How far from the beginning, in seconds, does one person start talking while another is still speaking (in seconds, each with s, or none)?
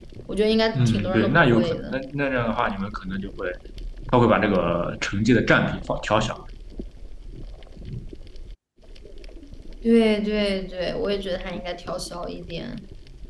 0.7 s